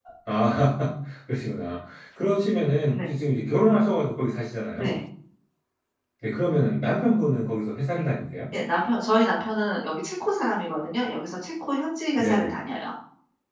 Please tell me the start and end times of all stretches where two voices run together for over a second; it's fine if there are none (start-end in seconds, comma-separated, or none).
none